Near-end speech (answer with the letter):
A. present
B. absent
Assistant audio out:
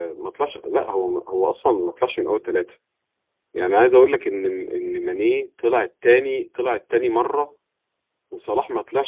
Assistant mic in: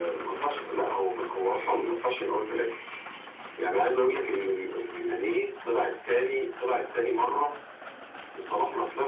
B